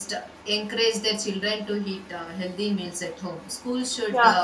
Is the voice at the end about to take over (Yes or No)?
No